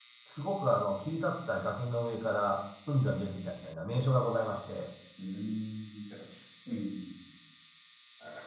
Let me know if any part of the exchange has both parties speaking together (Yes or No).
No